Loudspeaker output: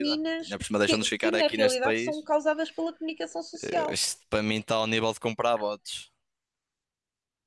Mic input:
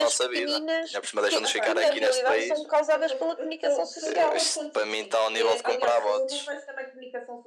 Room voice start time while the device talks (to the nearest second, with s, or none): 1 s